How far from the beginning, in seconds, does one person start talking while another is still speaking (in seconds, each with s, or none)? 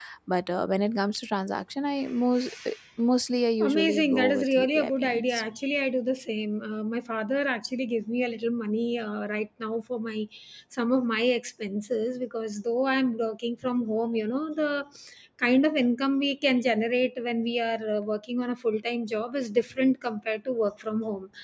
3.6 s